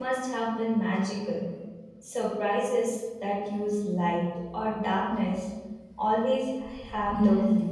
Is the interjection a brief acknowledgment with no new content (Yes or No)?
No